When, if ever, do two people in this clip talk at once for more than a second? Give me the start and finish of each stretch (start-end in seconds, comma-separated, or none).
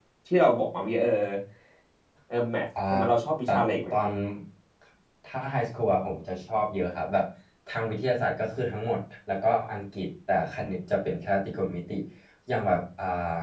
none